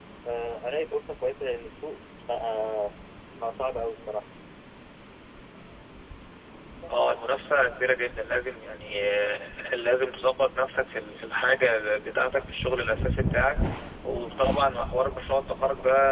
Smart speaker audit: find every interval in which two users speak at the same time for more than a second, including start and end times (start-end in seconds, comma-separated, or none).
none